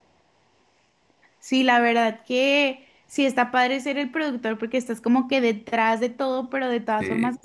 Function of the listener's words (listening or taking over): listening